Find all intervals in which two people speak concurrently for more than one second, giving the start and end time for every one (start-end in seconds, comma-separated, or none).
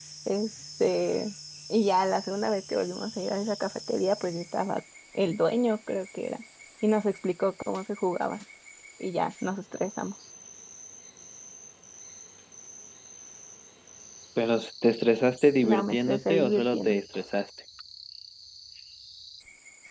15.6-17.0